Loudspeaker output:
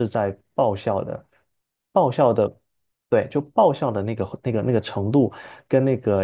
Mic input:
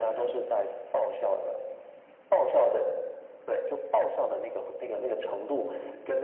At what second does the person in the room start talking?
none

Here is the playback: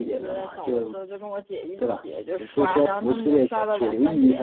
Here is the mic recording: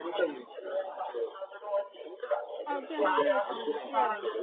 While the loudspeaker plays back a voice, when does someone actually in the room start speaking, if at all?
2.6 s

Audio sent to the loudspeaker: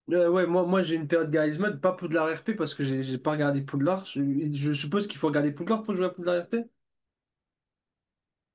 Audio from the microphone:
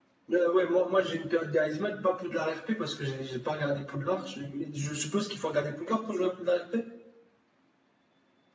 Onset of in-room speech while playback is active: none

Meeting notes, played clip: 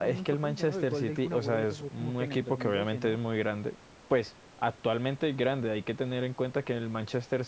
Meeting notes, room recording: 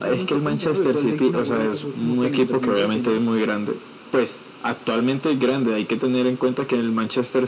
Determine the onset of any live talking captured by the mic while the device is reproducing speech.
none

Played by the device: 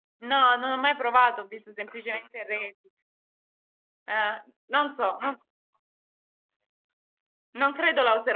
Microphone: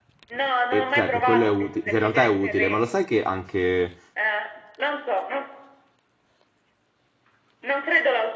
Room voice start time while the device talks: 0.7 s

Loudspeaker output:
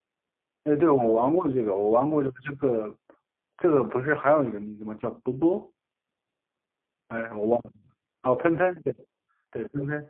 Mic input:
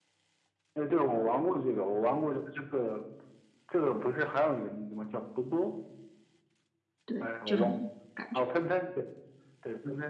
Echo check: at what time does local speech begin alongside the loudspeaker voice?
7.0 s

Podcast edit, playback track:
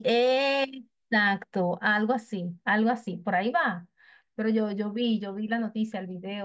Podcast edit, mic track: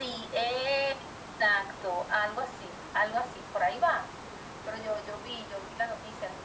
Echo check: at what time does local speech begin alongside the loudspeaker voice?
none

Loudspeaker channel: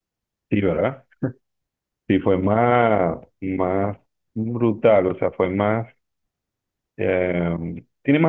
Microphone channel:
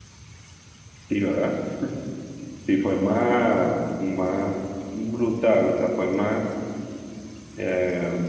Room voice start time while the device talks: none

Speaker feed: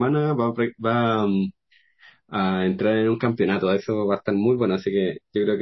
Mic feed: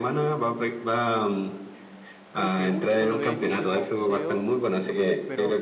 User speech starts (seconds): 2.3 s

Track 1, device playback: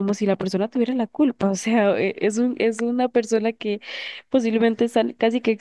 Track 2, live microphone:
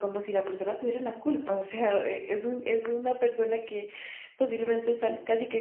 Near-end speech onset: none

